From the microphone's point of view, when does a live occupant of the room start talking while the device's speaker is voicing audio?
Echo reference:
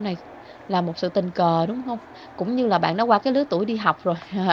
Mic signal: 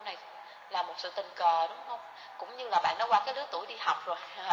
none

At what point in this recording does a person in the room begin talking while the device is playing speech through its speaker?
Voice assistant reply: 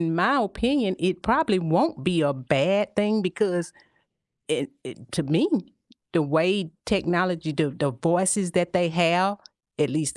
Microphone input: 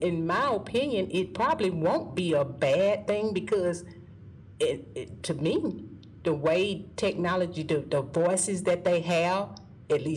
none

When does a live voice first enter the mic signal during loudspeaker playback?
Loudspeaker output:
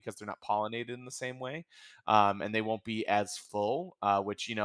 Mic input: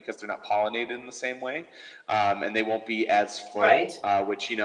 3.5 s

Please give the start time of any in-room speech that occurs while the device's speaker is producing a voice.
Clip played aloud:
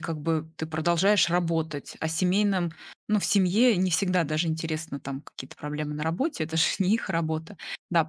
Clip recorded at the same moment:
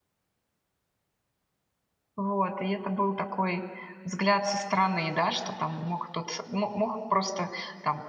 2.2 s

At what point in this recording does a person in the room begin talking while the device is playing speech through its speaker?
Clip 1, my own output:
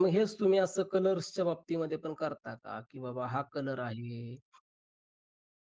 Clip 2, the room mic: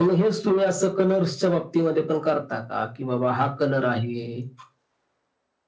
none

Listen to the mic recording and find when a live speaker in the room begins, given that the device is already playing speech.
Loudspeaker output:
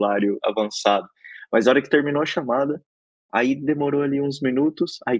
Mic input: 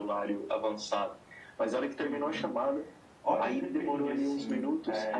2.0 s

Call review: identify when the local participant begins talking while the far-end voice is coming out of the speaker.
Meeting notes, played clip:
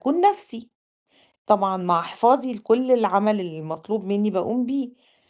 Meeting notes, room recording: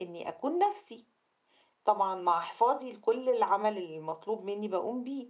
none

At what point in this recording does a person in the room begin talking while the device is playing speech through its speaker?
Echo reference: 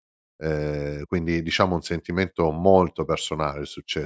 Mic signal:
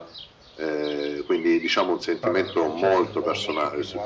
2.2 s

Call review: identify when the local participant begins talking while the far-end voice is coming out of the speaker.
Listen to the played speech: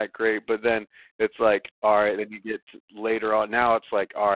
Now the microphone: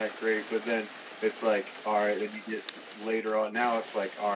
none

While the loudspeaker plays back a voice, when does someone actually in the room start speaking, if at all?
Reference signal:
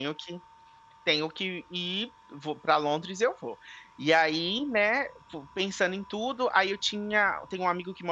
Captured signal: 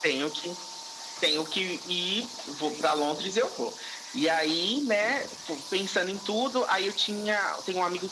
none

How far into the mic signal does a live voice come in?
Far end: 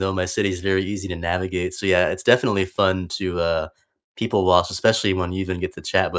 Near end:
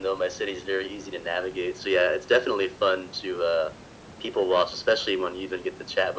none

